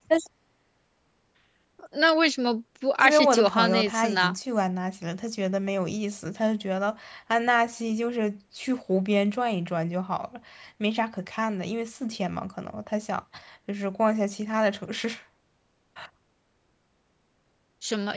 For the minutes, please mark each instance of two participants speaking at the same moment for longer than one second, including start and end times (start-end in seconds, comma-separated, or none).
3.0-4.3